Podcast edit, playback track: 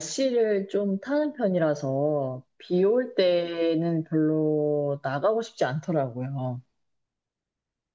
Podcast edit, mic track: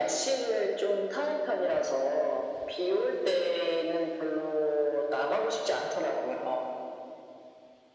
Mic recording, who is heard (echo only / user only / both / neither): echo only